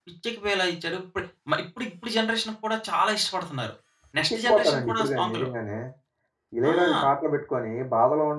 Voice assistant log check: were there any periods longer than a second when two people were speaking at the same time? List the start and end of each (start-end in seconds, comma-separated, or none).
4.2-5.5